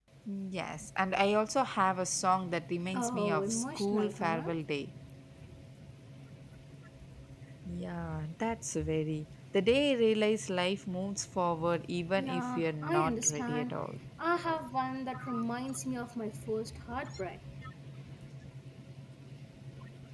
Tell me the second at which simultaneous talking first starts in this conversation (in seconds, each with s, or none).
2.9 s